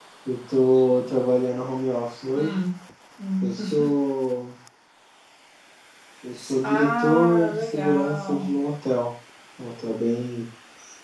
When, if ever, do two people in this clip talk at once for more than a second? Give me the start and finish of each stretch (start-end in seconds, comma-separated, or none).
6.6-8.5